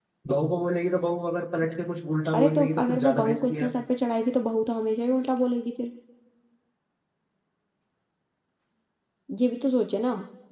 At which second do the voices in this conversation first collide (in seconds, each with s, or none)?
2.3 s